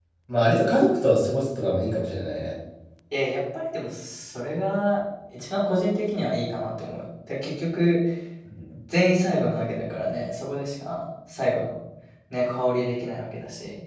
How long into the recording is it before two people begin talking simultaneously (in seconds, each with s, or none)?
none